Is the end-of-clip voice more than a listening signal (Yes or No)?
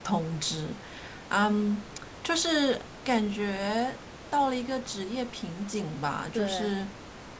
No